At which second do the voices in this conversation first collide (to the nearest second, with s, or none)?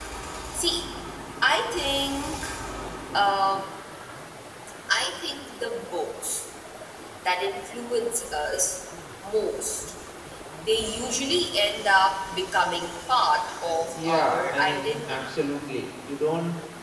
14 s